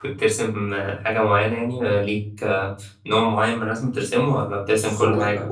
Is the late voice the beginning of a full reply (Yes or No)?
Yes